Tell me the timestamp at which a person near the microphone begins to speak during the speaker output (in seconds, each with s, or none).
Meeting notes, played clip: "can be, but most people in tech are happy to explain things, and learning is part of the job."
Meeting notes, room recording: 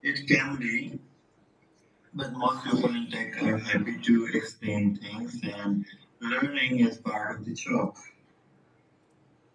none